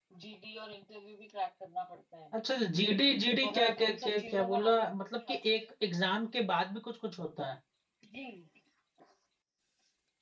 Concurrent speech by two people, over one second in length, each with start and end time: 3.4-5.6

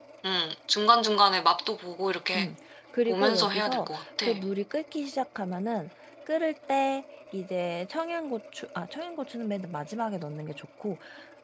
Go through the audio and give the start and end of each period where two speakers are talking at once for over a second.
3.1-4.3

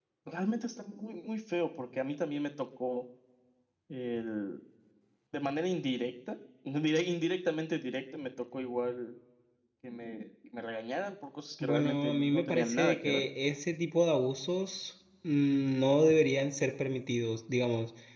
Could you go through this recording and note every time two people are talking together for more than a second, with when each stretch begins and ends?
11.6-13.2

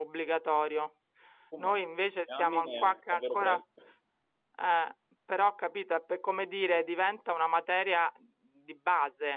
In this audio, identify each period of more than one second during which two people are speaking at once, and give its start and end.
2.4-3.6

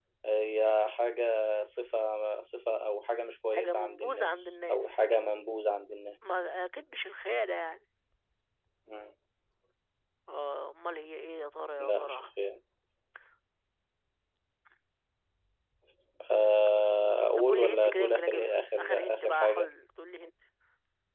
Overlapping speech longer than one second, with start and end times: 3.5-5.0, 17.4-19.7

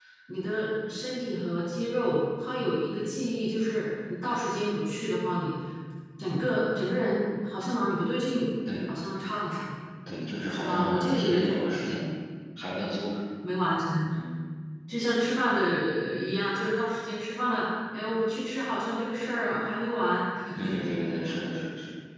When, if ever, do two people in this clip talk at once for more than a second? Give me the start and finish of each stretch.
10.5-11.9

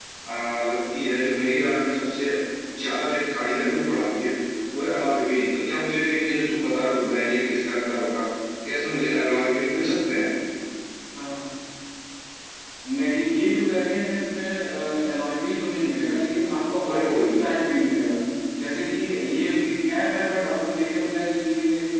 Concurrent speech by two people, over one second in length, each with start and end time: none

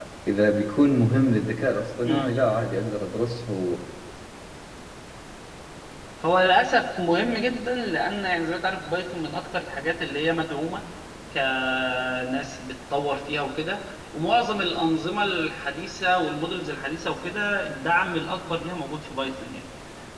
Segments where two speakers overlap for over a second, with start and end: none

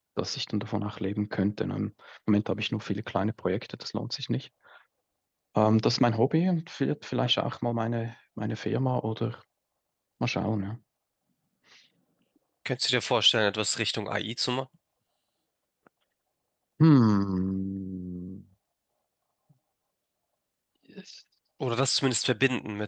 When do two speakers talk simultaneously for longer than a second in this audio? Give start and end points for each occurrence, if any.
none

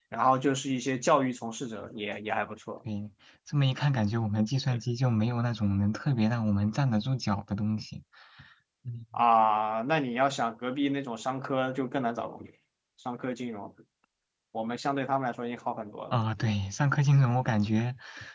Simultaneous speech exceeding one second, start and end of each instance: none

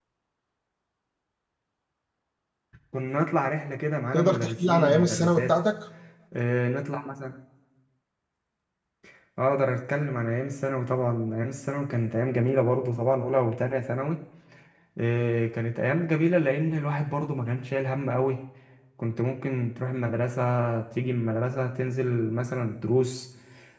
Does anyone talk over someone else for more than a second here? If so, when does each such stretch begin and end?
4.1-5.5

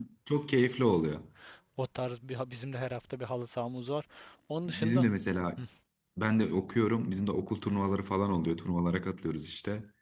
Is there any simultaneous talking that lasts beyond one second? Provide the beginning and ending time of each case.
none

